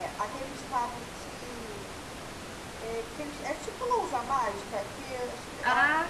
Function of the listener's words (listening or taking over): listening